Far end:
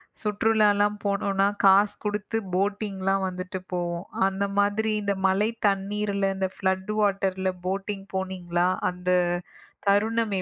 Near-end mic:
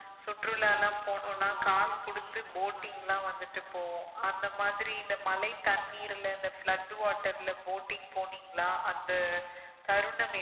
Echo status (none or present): present